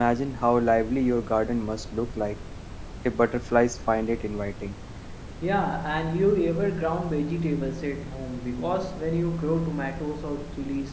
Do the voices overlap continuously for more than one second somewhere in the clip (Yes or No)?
No